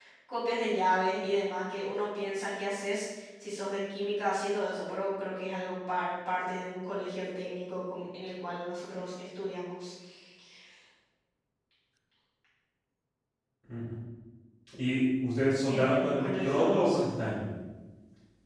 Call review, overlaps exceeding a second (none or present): present